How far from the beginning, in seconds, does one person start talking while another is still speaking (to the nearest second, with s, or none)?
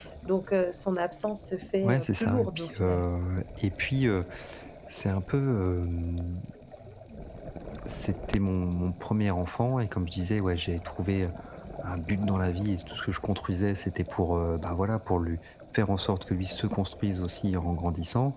2 s